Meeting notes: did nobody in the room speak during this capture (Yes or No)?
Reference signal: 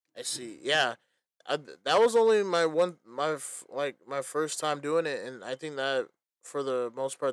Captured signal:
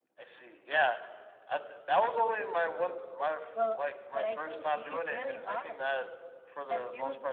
No